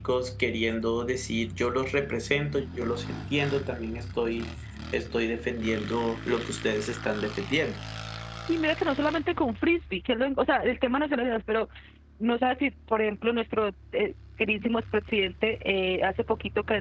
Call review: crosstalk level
none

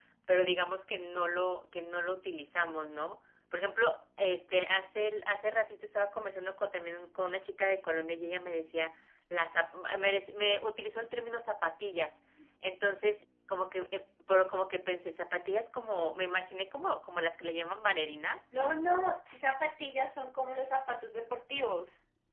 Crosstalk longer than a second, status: none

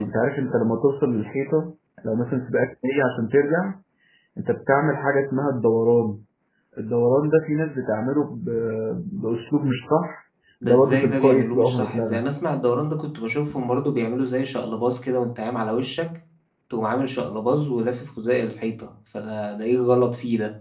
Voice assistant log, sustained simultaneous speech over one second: present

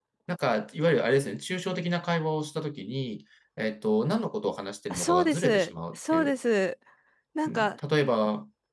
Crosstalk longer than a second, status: present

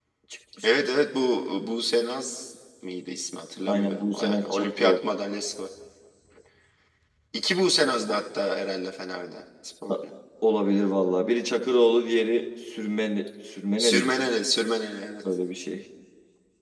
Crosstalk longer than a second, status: present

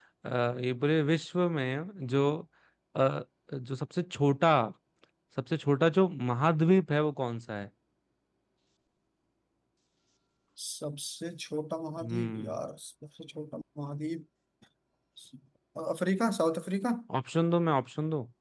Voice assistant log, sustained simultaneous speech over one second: none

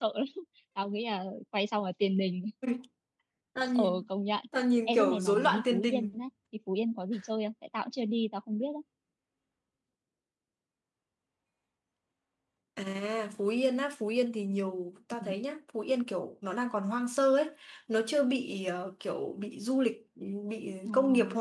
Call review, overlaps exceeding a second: present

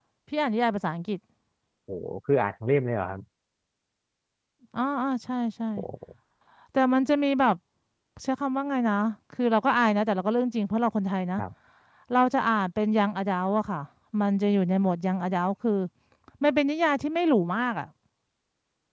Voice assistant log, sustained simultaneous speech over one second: none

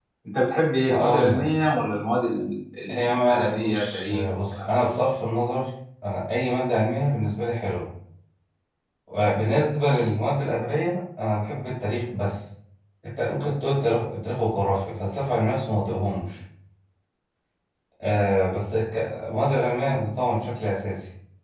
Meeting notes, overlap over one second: present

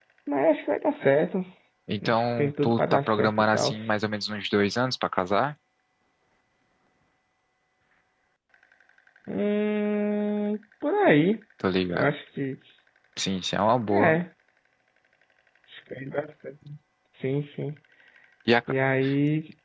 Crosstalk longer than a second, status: present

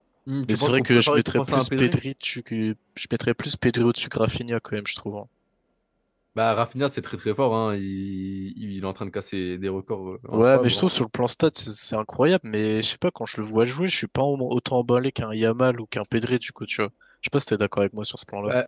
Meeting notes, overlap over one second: present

